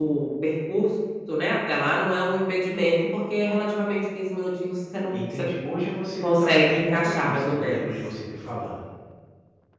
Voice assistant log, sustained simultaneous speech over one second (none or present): present